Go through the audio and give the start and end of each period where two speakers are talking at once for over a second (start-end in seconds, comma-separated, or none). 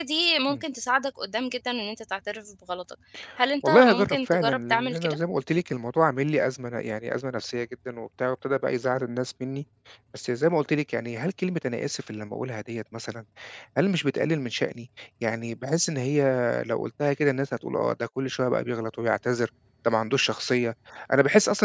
3.7-5.2